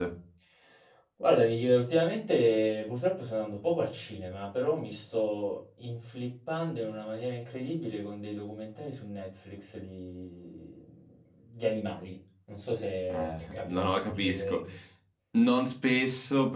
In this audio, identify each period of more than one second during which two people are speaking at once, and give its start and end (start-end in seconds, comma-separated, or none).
13.1-14.6